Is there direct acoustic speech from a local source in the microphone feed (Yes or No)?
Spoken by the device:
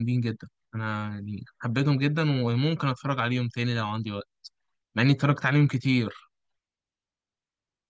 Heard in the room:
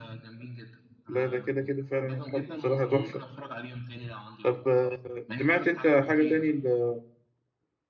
Yes